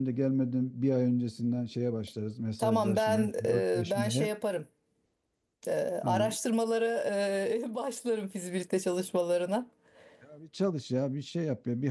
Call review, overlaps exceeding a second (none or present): present